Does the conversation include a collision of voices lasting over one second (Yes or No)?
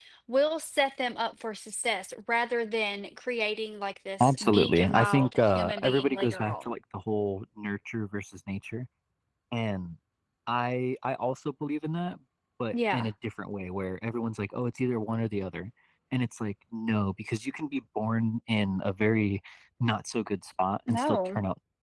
Yes